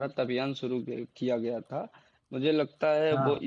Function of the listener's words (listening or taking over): listening